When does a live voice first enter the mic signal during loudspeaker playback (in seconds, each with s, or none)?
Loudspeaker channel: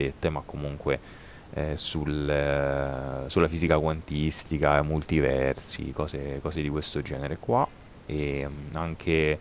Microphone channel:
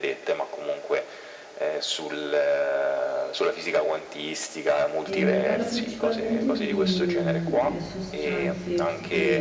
5.0 s